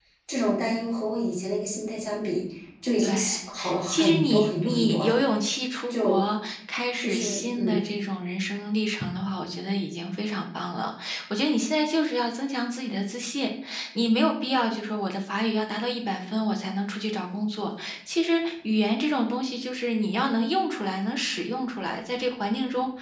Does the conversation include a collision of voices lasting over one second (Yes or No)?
Yes